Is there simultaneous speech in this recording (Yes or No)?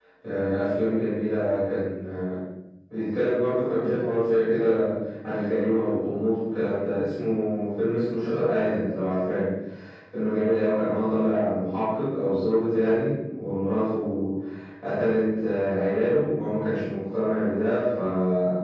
No